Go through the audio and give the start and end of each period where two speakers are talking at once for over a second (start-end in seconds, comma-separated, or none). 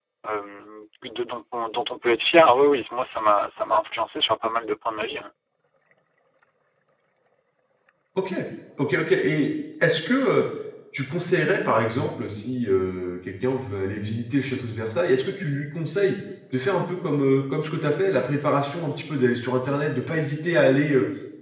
none